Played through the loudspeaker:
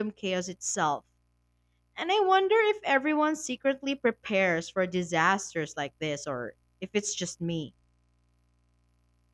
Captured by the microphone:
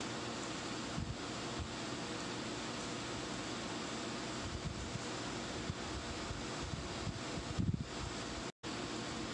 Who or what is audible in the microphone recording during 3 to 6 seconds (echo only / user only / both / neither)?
neither